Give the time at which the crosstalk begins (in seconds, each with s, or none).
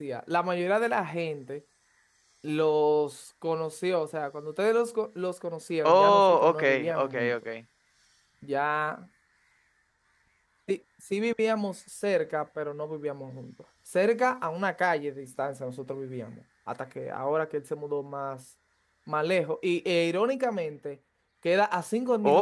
5.8 s